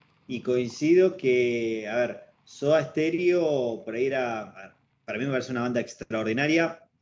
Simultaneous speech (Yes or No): No